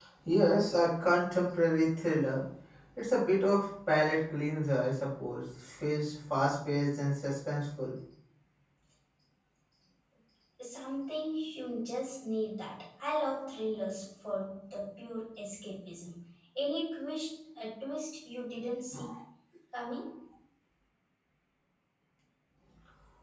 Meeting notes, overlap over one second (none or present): none